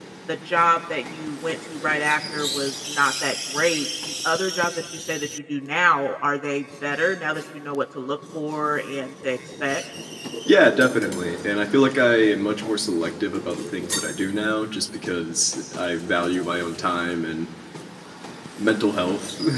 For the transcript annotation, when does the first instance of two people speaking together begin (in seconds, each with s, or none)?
none